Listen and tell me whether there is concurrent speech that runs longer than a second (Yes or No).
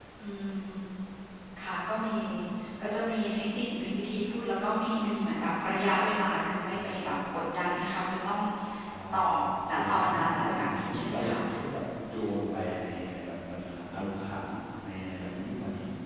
Yes